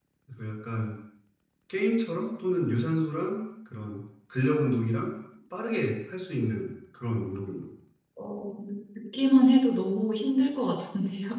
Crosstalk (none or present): none